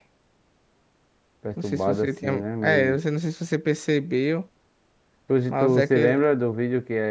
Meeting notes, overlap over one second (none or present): present